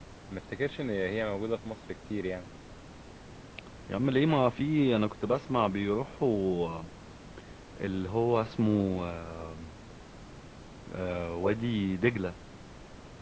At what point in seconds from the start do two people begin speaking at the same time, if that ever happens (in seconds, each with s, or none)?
none